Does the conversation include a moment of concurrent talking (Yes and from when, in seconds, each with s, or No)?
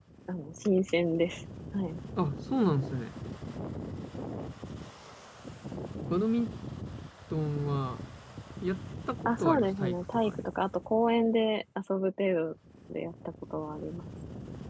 Yes, from 9.2 s